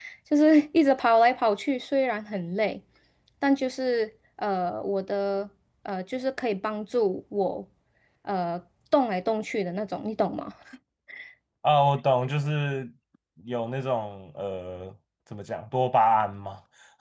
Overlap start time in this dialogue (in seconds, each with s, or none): none